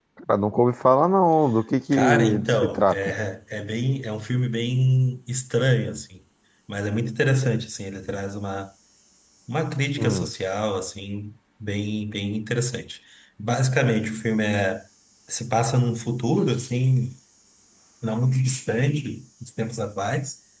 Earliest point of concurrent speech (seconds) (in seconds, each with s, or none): 1.9 s